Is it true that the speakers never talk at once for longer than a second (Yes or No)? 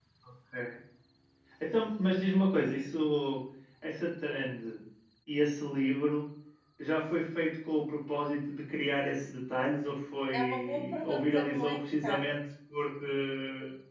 No